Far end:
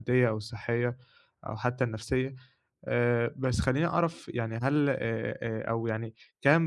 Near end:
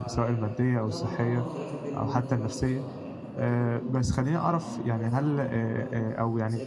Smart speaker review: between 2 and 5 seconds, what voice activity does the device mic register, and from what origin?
both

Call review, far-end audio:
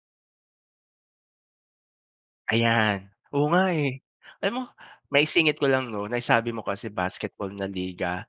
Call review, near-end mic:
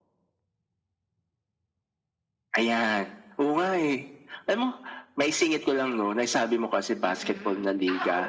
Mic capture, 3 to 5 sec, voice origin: echo only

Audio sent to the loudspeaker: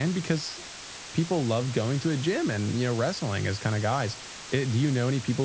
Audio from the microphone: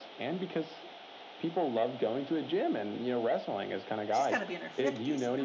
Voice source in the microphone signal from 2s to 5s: both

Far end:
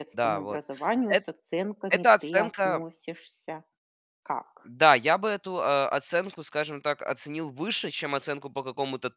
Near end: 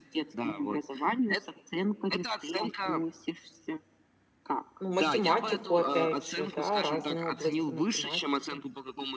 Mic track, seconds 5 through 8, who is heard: both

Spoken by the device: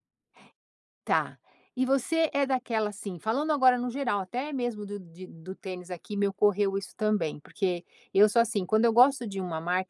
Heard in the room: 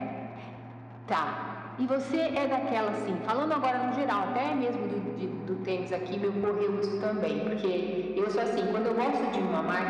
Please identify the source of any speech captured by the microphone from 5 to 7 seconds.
echo only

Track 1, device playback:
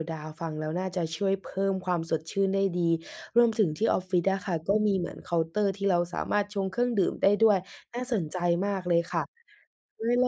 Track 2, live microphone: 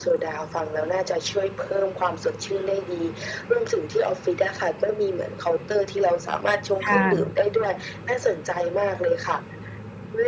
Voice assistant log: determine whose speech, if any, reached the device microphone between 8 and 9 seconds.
echo only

